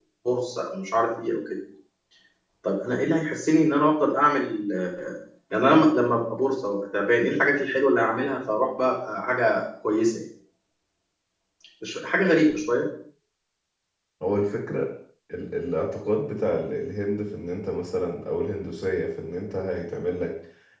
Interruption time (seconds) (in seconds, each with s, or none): none